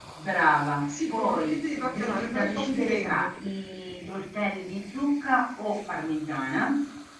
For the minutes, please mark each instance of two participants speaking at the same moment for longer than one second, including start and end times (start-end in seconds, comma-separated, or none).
0.9-3.3